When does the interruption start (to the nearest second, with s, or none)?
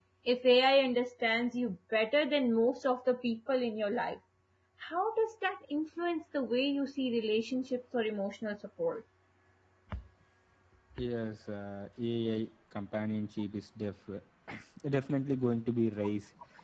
none